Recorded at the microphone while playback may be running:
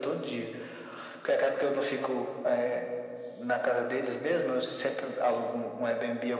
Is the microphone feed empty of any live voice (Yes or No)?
Yes